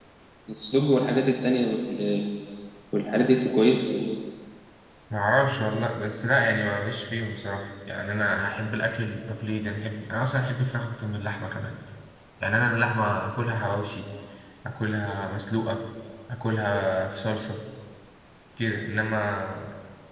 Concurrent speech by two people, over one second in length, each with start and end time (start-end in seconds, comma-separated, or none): none